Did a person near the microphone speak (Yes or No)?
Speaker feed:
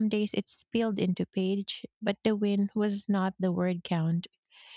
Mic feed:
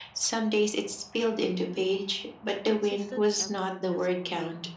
Yes